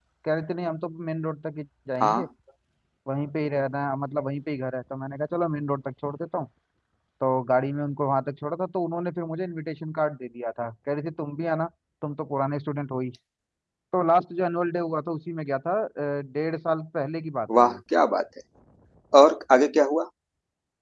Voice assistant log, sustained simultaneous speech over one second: none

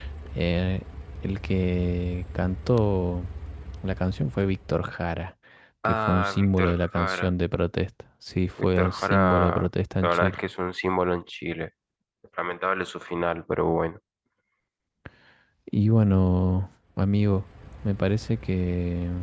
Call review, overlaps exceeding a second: present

